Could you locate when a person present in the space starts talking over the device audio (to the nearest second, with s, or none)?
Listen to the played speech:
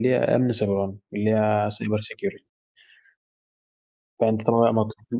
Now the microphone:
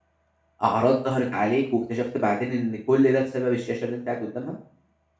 1 s